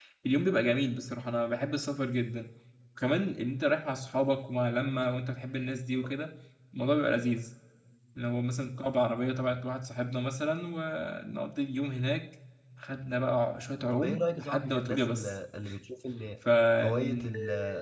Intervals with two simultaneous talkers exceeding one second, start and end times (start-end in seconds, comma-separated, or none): 13.9-15.3